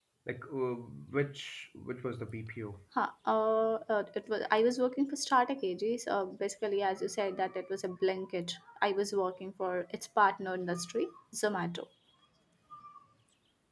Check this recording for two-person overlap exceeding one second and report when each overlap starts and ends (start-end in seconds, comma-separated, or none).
none